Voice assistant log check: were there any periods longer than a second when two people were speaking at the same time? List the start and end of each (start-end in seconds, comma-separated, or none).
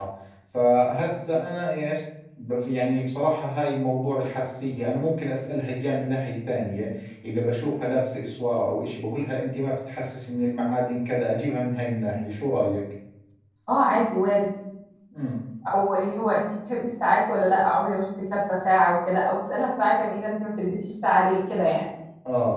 none